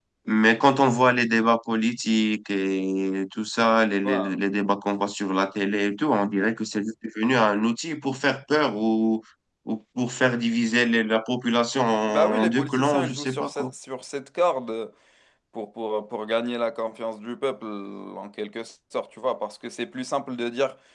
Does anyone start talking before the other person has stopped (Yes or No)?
Yes